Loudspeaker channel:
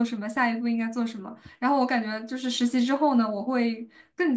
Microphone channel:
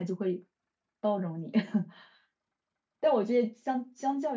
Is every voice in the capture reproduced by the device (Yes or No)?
No